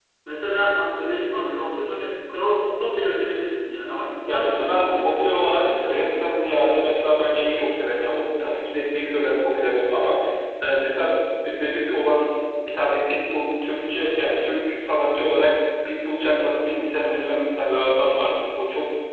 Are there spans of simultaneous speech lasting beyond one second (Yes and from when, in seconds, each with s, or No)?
Yes, from 4.3 s